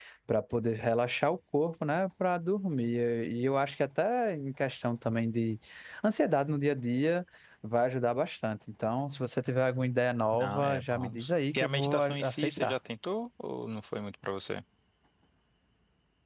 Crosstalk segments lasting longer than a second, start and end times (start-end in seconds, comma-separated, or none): 10.3-12.8